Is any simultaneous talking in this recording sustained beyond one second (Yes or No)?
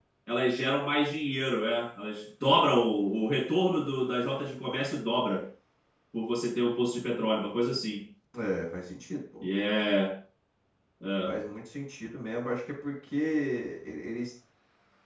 No